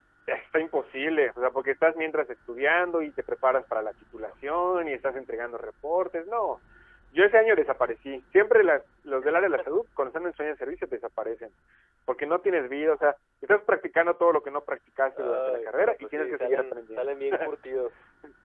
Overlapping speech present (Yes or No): Yes